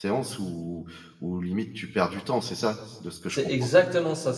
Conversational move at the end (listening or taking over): taking over